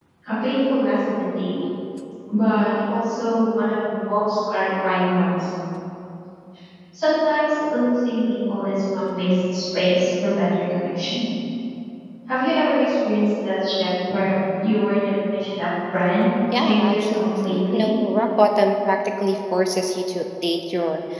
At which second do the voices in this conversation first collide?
17 s

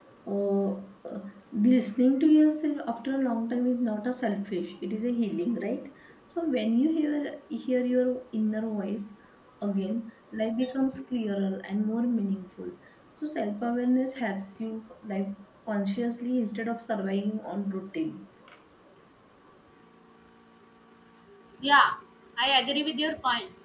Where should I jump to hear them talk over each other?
none

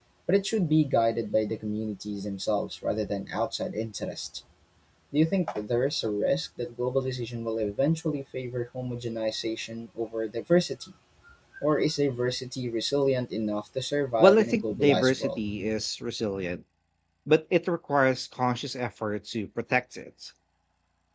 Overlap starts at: 14 s

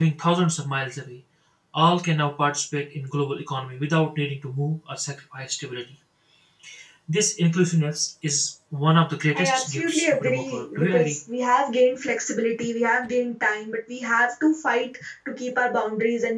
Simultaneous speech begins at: 9 s

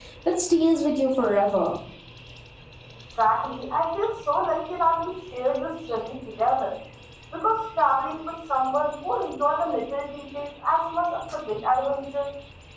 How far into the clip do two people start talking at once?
none

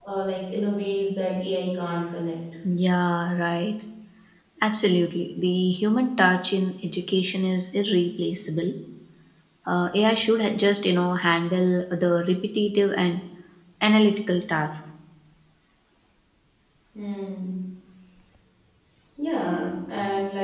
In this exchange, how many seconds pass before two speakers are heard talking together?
none

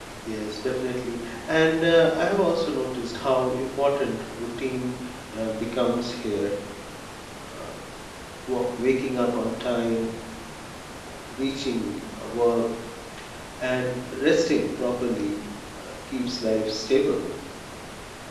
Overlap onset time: none

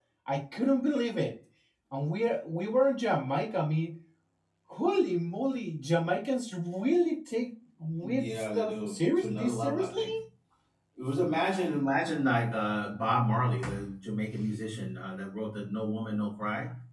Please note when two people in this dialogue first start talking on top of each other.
8 s

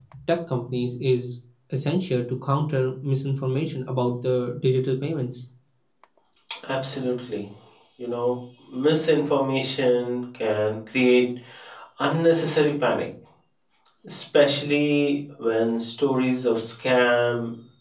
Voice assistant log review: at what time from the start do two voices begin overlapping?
none

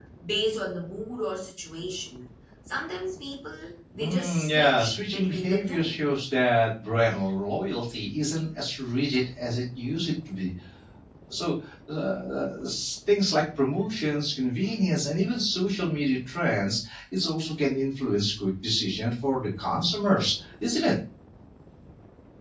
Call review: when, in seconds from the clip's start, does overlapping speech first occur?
4 s

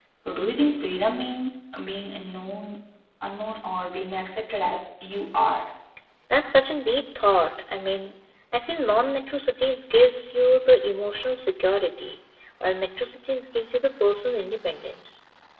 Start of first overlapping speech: none

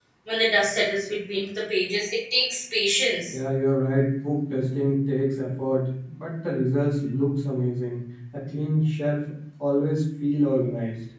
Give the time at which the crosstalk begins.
none

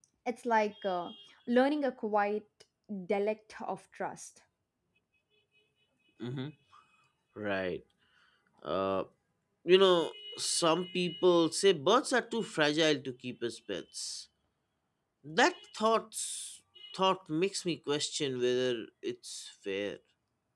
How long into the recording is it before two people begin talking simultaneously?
none

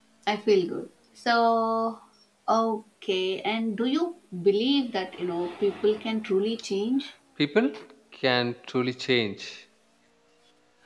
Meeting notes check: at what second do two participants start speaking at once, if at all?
none

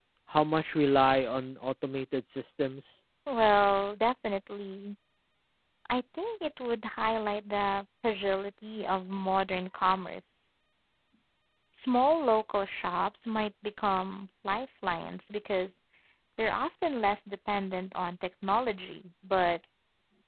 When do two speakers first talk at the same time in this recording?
none

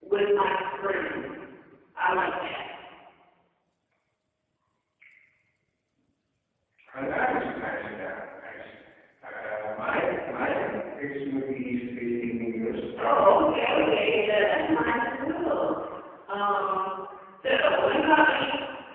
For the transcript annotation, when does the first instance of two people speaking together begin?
13 s

